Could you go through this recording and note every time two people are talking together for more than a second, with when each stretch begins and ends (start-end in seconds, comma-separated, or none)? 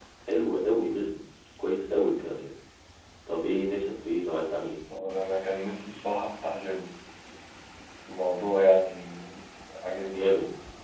none